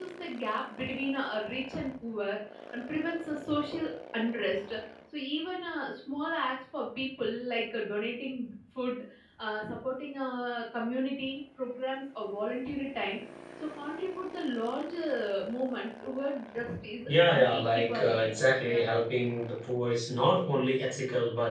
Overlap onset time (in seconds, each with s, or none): 17.1 s